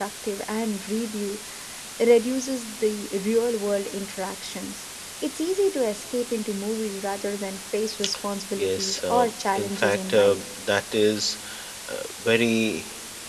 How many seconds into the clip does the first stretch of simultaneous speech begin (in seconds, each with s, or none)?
8.6 s